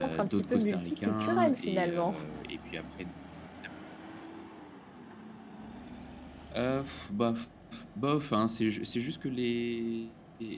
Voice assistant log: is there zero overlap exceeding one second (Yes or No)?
No